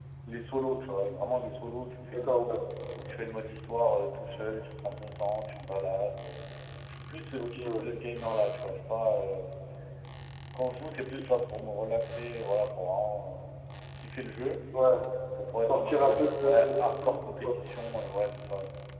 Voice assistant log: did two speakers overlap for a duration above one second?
Yes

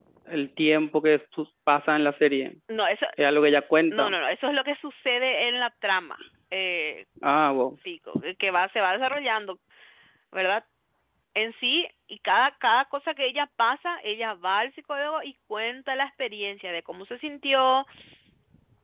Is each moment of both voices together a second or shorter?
Yes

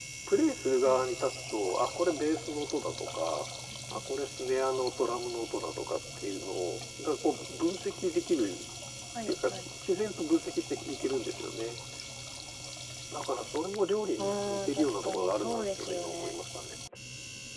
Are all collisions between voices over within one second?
No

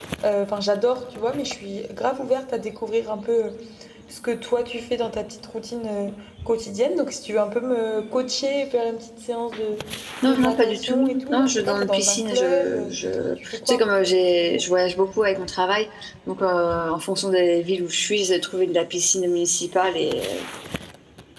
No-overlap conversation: No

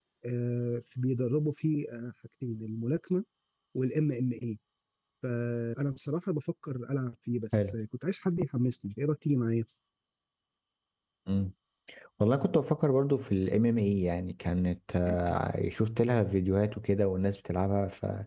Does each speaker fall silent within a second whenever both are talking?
Yes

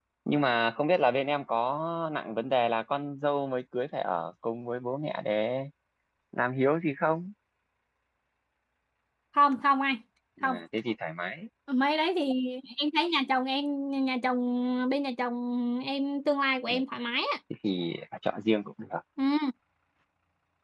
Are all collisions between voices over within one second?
Yes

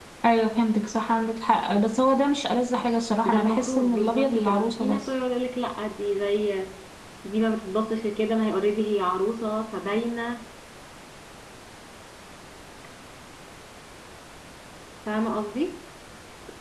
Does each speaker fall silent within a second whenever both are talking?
No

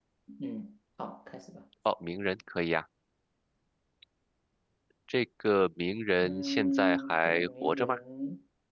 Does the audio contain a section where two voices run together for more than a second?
Yes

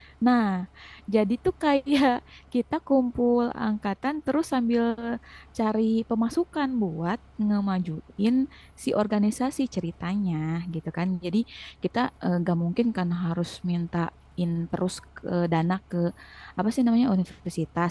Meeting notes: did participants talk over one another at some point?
No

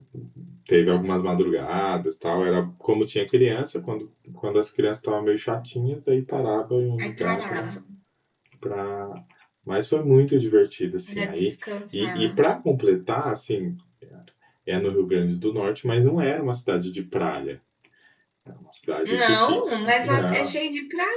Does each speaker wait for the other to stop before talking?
No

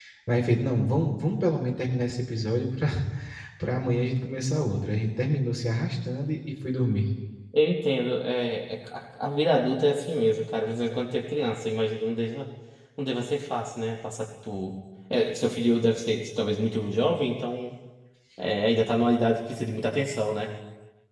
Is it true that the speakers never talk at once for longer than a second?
Yes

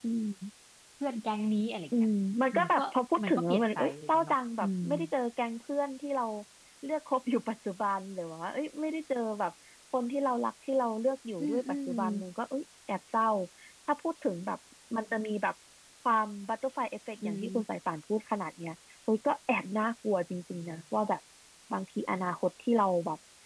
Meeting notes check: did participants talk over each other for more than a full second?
Yes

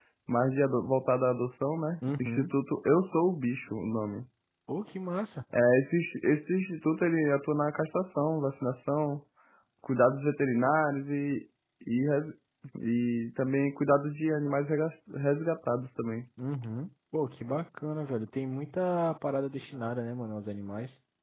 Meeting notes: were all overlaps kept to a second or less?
Yes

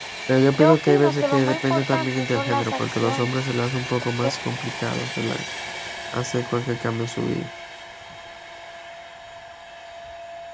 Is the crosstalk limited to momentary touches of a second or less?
No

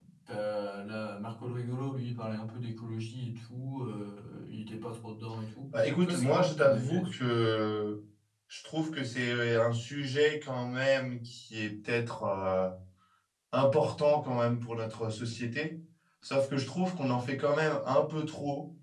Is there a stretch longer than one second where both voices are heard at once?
Yes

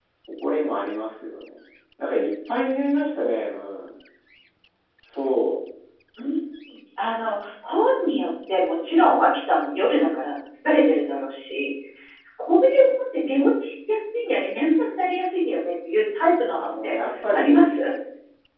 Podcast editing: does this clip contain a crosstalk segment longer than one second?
No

